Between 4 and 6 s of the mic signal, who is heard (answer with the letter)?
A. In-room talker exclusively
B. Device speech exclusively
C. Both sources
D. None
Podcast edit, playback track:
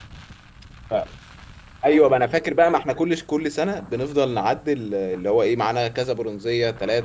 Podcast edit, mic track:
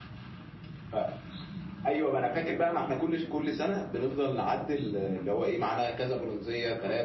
B